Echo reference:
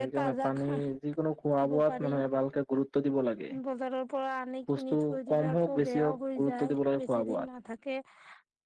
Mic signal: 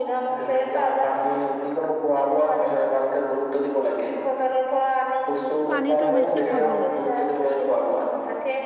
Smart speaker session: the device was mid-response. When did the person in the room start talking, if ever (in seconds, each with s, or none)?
5.7 s